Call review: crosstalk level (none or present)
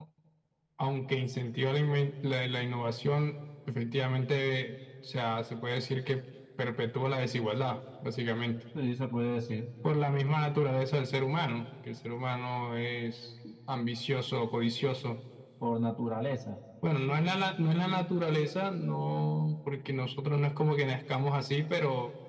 none